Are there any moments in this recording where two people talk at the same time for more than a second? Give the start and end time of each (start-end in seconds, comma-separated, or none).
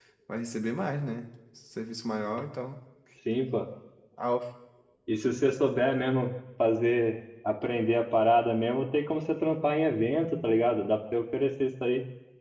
none